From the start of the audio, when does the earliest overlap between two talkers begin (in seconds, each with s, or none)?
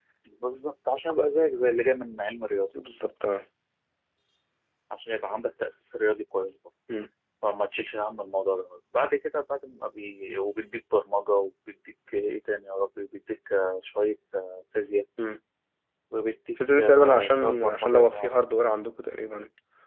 16.8 s